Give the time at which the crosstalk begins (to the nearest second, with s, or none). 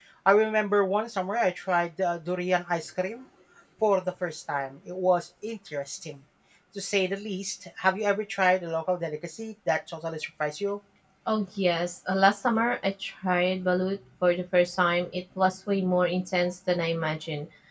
none